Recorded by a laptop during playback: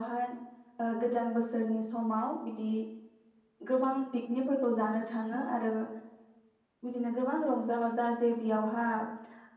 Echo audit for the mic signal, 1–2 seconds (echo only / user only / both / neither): echo only